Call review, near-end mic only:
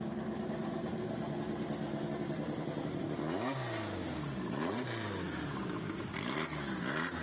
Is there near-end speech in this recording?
No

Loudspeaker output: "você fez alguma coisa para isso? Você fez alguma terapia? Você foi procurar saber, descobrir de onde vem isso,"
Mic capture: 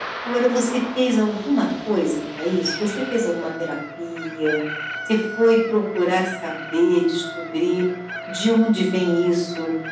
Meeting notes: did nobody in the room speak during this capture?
Yes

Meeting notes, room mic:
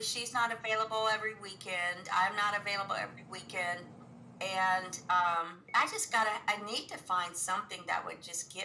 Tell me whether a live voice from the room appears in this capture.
No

